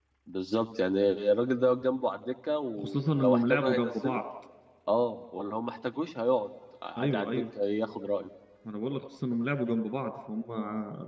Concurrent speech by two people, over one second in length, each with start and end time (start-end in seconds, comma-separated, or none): 2.8-4.2